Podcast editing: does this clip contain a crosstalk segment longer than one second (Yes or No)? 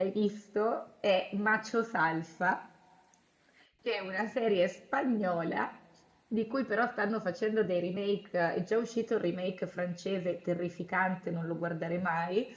No